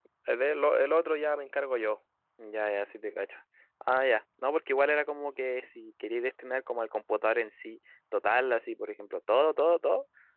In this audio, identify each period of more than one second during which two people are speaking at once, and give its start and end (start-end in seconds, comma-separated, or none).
none